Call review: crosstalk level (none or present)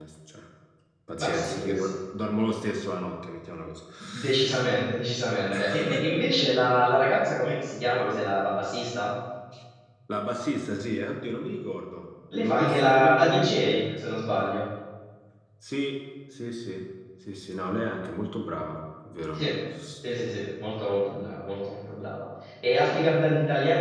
present